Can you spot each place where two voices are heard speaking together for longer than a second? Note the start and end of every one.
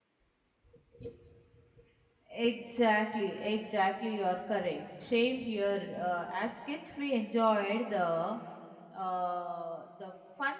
none

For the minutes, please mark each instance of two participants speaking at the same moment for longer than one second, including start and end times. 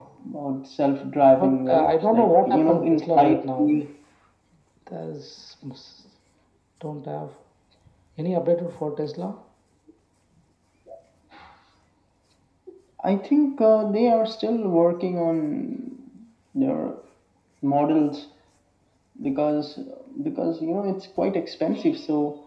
1.4-3.8

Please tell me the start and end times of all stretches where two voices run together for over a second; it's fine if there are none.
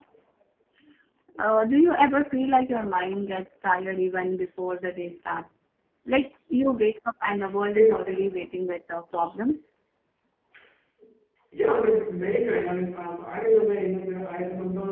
none

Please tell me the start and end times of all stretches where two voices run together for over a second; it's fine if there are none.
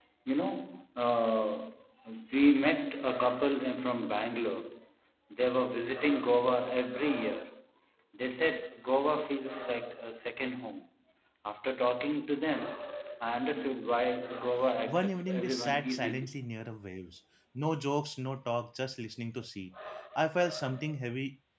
14.9-16.3

